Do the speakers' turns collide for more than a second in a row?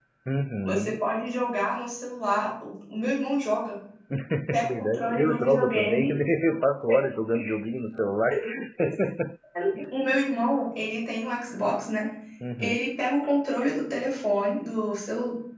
Yes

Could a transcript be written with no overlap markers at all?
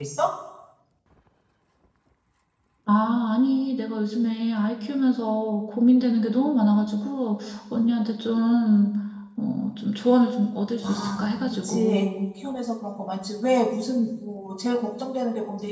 No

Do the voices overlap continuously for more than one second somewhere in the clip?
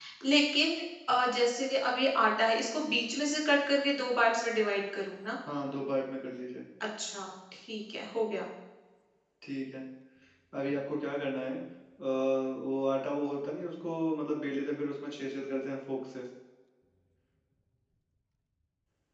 No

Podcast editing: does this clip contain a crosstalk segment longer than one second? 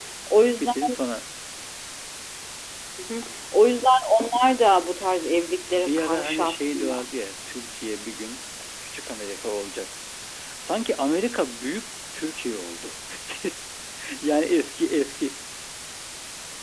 Yes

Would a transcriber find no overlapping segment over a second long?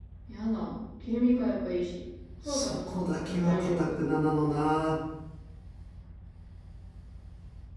No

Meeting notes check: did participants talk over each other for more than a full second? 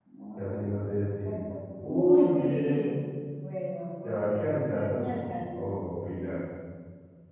Yes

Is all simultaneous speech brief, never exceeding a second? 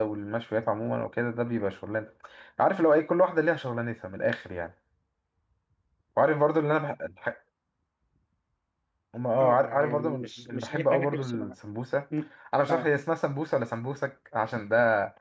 No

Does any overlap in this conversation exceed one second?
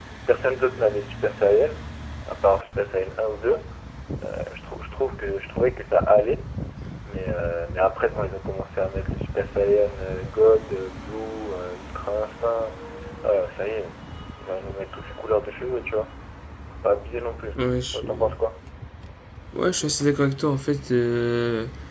No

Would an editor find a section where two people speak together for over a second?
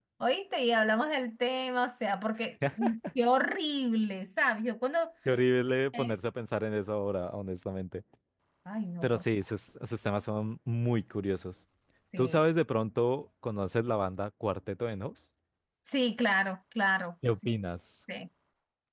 No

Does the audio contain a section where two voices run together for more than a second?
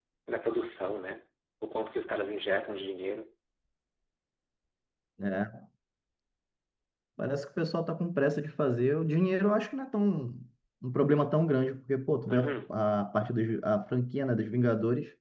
No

